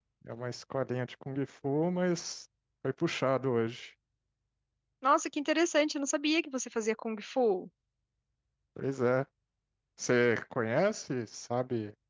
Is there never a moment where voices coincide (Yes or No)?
Yes